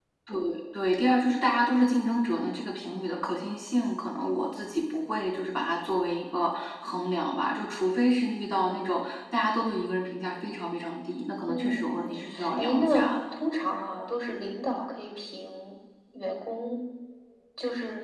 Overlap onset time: 11.5 s

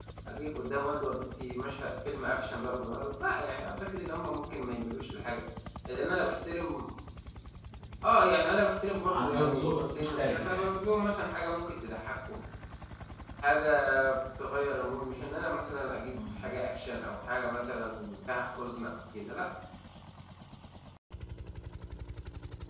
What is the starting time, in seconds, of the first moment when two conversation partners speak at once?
9.1 s

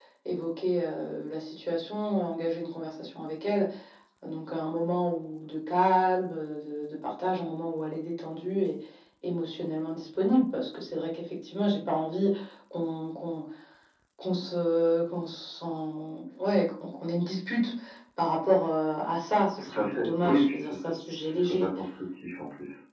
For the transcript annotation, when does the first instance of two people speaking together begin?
19.6 s

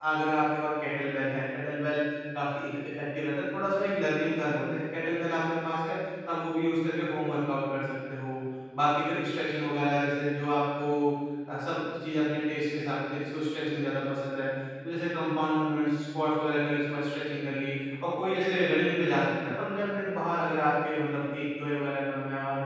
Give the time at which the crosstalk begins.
none

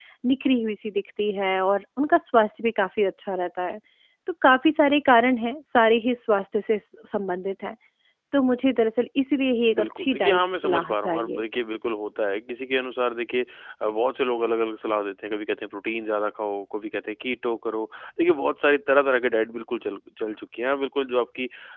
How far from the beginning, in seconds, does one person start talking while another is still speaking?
9.7 s

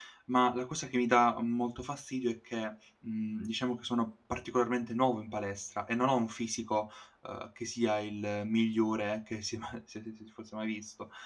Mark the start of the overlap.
none

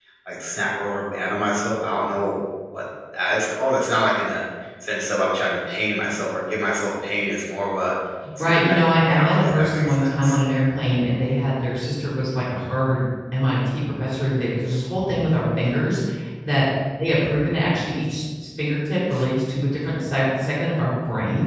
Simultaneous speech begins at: 8.4 s

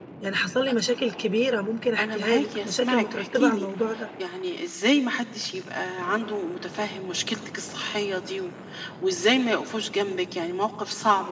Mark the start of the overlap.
2.0 s

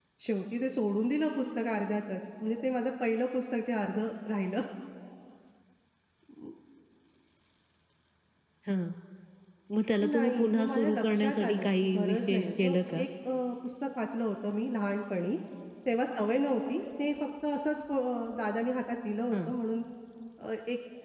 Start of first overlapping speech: 10.1 s

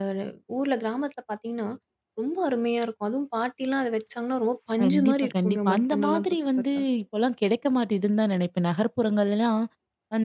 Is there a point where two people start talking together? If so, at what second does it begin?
4.8 s

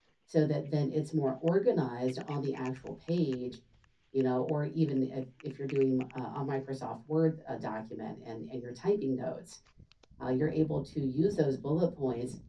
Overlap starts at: none

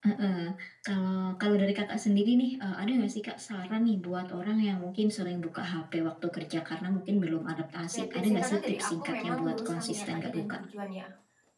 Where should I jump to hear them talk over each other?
7.9 s

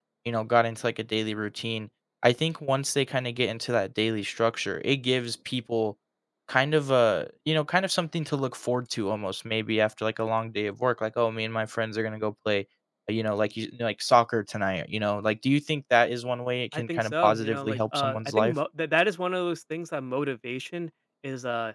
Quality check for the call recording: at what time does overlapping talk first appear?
16.7 s

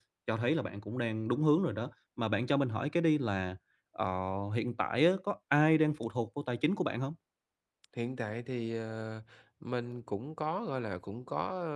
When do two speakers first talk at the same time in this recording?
none

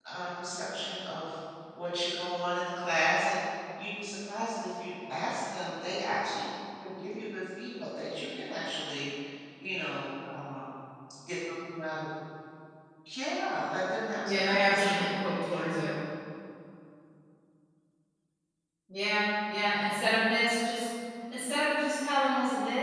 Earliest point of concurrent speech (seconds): 14.2 s

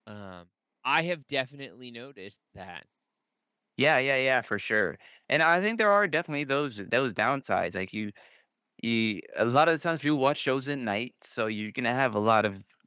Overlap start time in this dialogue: none

